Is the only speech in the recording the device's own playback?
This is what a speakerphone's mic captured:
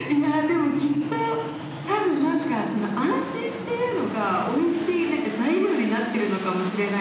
Yes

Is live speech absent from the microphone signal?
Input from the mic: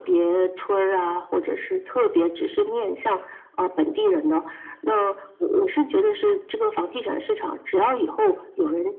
Yes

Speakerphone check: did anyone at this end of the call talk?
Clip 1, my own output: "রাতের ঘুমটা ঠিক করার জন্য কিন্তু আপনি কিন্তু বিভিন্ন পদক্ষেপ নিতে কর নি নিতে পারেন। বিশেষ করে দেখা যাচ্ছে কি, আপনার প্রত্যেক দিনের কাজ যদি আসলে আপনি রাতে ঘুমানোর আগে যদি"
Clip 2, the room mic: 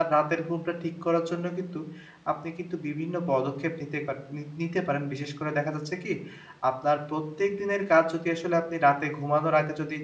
No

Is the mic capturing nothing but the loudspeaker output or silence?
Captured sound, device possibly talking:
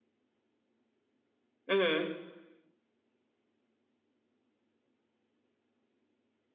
No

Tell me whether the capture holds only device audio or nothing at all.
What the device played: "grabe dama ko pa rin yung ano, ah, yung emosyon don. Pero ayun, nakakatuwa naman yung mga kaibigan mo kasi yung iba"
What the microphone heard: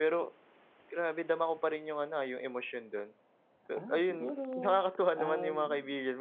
No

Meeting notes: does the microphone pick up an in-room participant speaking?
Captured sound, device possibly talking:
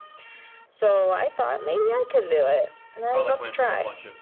Yes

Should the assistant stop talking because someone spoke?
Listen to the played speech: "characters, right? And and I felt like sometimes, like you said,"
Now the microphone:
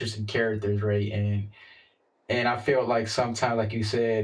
No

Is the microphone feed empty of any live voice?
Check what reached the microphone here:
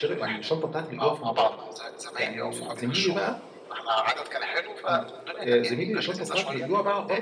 No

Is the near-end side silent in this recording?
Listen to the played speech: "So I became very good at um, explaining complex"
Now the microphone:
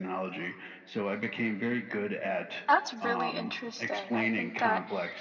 No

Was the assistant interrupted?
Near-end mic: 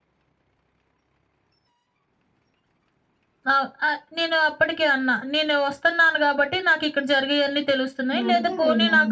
Yes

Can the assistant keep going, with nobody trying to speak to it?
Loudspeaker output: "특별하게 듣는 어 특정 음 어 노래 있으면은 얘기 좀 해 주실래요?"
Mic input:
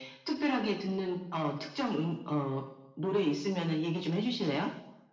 Yes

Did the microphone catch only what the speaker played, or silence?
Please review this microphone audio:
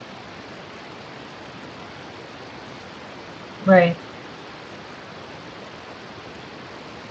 No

